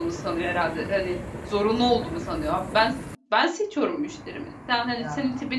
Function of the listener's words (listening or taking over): listening